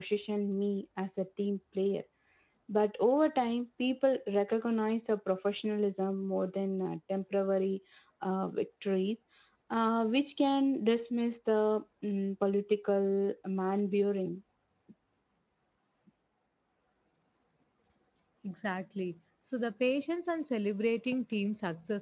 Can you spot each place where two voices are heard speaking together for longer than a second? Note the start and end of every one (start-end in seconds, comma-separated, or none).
none